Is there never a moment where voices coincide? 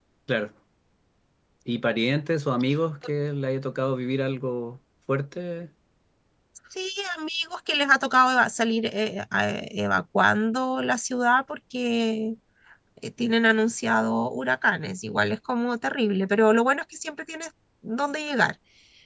Yes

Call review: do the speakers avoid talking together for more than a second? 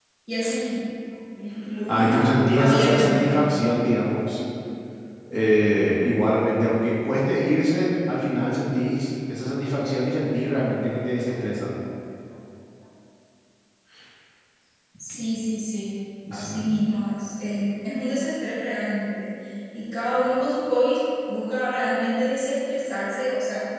No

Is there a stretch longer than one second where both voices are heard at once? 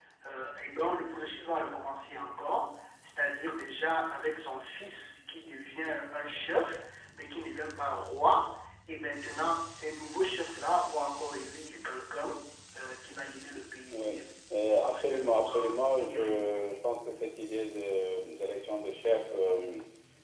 Yes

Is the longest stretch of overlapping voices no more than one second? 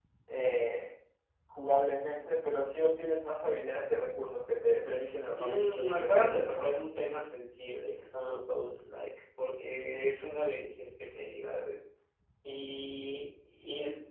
No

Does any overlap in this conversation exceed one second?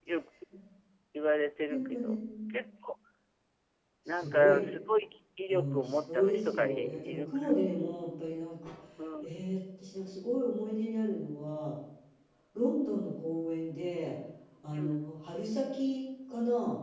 Yes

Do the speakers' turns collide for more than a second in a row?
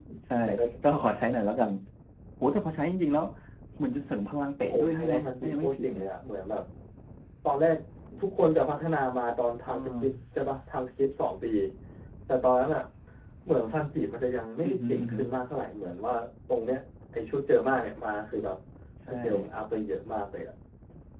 Yes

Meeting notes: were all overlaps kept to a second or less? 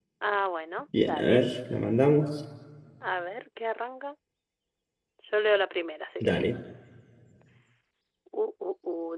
Yes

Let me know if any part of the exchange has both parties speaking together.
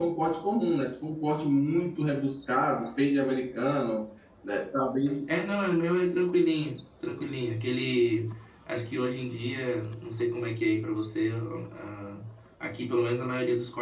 No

